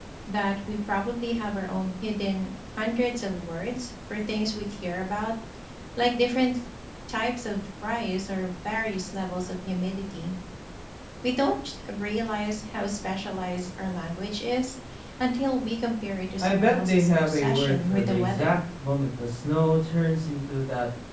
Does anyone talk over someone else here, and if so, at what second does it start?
16.4 s

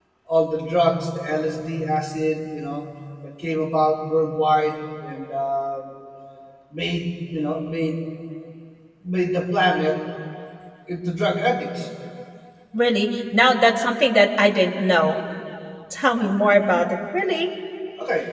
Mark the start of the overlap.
none

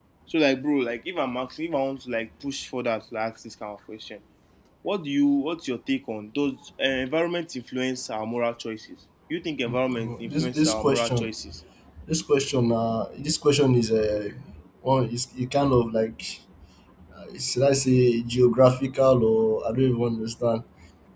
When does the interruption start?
9.7 s

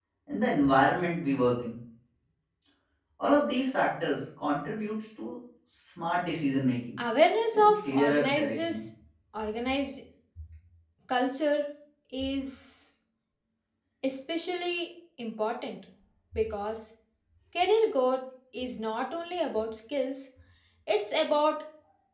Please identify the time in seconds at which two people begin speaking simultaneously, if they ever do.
7.5 s

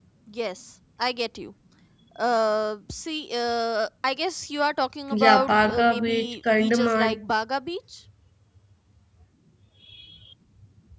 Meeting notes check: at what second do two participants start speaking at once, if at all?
5.1 s

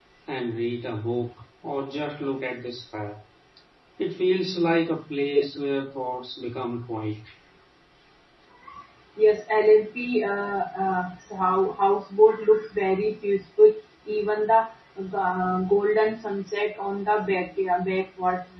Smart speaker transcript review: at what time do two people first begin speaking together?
none

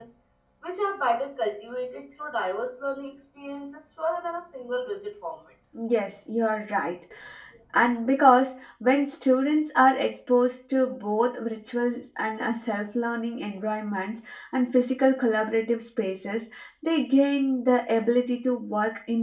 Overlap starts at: none

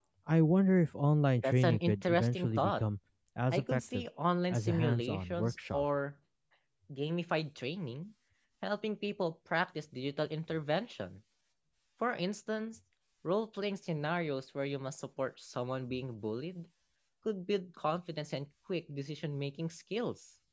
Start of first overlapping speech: 1.4 s

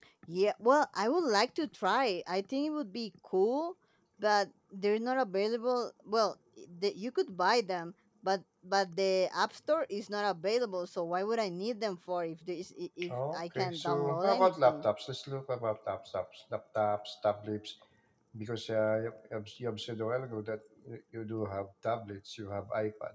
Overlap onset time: 13.0 s

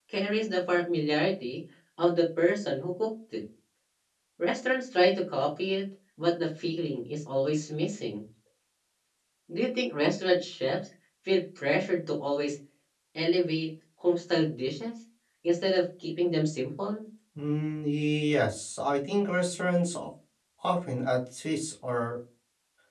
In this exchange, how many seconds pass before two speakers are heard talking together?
none

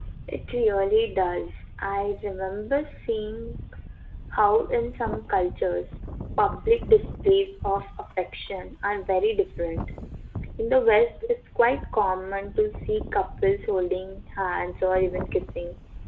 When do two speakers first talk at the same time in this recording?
none

